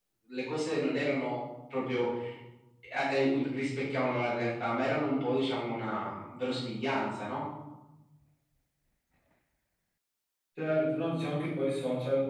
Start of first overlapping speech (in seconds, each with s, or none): none